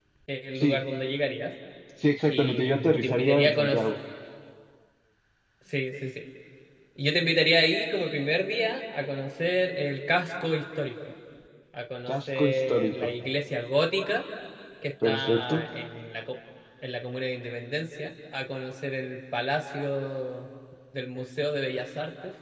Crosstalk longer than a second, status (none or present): present